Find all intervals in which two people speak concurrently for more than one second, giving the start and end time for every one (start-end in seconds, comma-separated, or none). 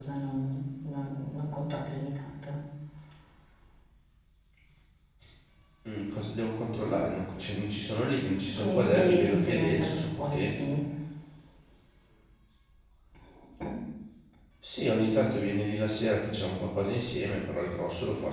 8.5-10.6